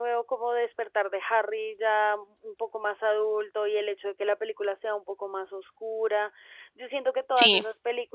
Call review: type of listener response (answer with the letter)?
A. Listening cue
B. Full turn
A